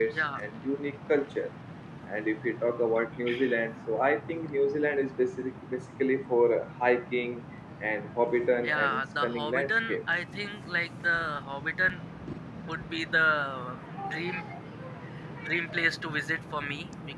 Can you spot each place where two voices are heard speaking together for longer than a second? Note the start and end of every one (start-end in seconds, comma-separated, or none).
8.6-10.0